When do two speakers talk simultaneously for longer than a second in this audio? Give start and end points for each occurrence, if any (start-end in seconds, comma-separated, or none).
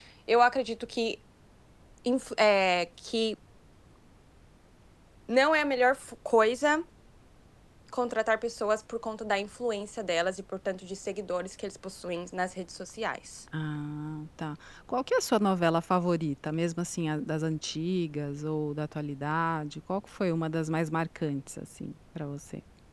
none